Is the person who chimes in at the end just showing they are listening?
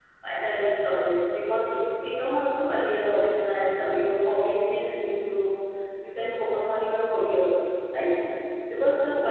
Yes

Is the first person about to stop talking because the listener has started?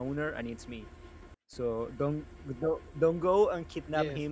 Yes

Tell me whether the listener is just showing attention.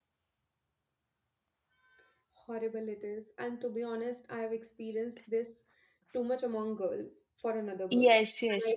No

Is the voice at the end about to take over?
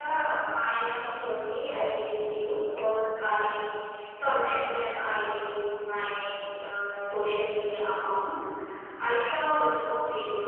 No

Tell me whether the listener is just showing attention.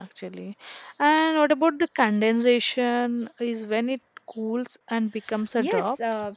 No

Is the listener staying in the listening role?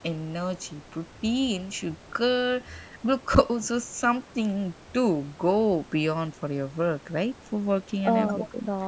No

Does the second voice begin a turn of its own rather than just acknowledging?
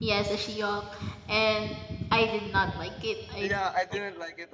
Yes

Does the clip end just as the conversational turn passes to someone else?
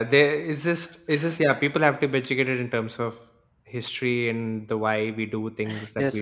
Yes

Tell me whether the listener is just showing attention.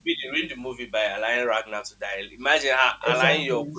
Yes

